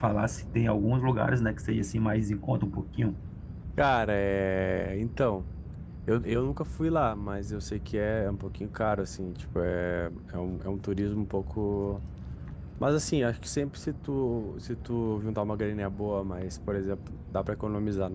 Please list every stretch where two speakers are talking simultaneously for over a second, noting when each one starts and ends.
none

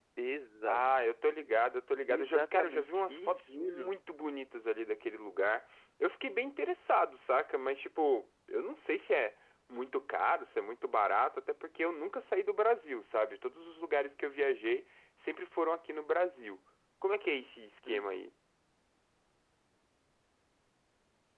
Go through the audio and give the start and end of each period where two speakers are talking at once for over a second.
2.1-3.9

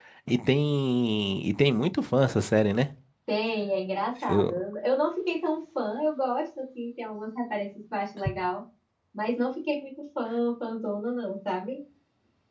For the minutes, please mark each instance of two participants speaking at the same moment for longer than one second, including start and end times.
none

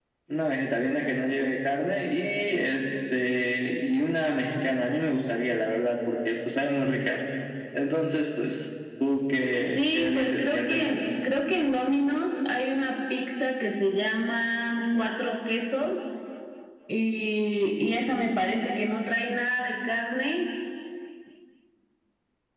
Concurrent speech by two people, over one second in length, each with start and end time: 9.8-11.0

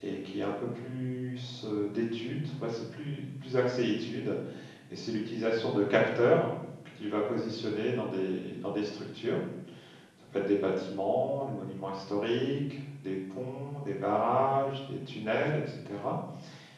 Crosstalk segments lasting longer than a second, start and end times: none

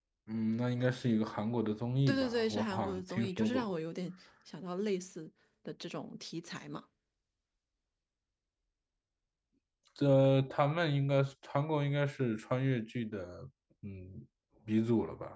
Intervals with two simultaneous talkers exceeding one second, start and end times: 2.1-3.7

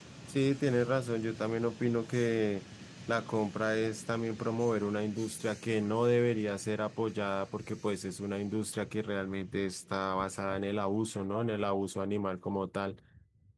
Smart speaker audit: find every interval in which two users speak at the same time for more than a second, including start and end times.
none

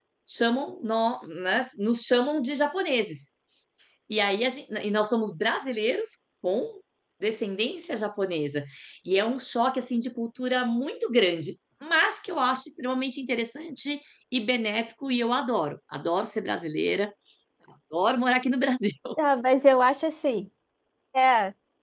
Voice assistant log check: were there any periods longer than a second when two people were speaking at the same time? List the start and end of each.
none

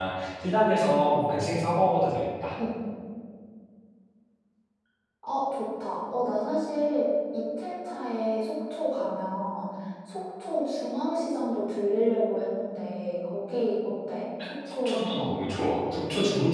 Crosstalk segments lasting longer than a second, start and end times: none

